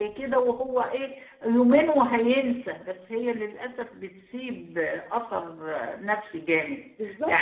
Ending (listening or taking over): listening